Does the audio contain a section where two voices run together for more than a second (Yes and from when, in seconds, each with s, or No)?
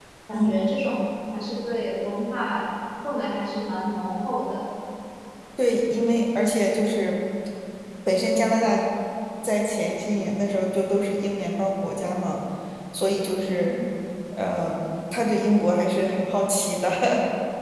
No